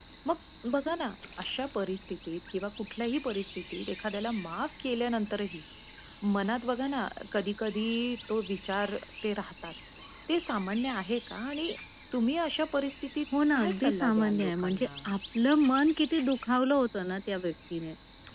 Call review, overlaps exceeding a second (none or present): present